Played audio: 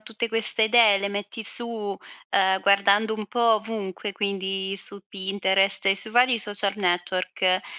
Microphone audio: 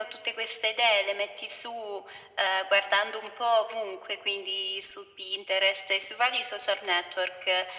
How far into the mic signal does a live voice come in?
none

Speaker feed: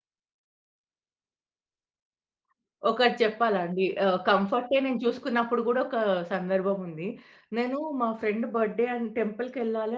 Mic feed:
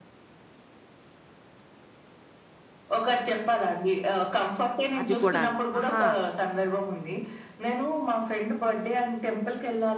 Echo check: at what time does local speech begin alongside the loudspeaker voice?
5.0 s

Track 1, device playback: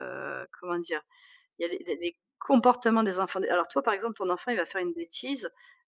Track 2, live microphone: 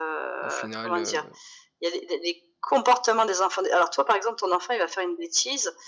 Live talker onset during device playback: 0.4 s

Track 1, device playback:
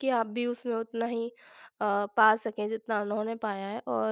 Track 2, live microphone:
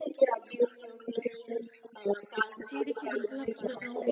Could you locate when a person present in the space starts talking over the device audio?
2.7 s

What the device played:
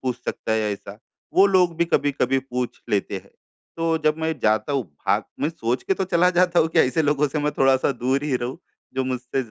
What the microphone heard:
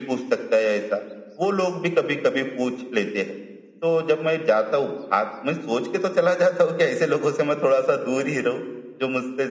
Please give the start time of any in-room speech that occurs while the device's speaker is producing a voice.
none

